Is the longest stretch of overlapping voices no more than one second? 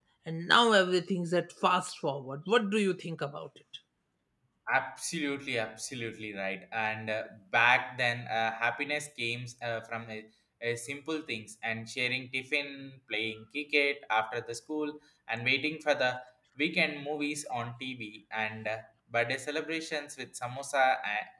Yes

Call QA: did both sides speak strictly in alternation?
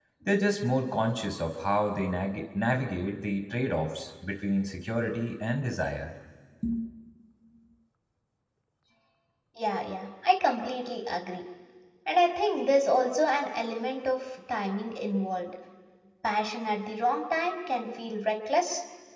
Yes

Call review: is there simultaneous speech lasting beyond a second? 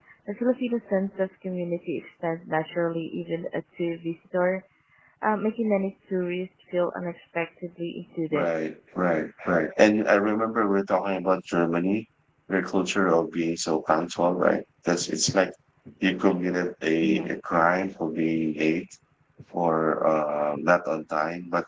No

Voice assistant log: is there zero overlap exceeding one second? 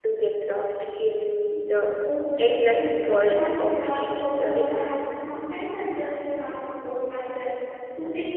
No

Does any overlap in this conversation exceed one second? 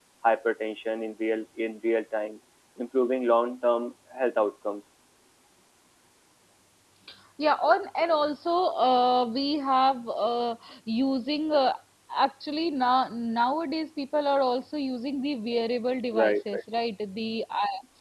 No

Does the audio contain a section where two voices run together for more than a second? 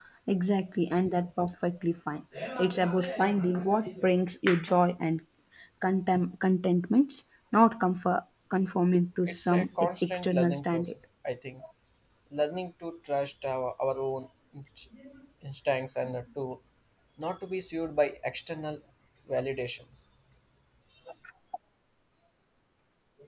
Yes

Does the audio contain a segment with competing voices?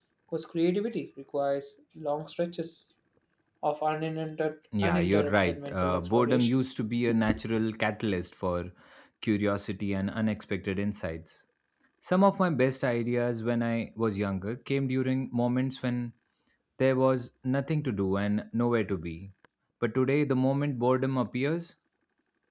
Yes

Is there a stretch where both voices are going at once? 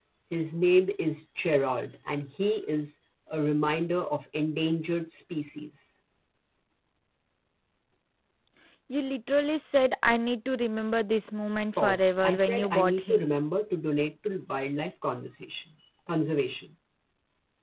Yes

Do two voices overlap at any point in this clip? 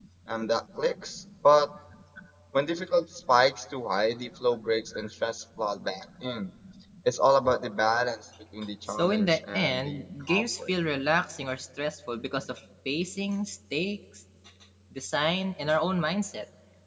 Yes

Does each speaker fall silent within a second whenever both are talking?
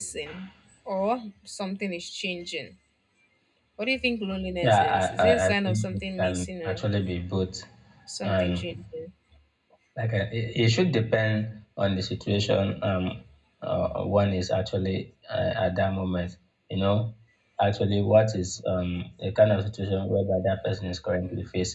No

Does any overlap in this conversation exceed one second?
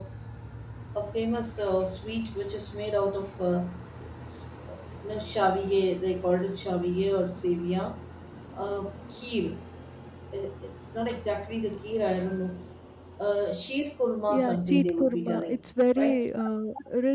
Yes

